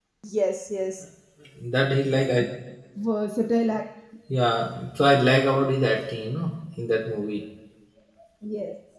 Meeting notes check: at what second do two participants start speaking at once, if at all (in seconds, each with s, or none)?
none